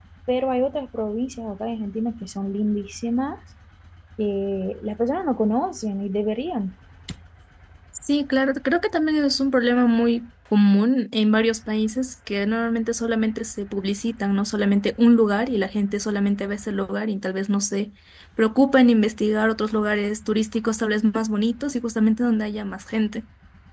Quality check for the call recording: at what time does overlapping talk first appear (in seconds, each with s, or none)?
none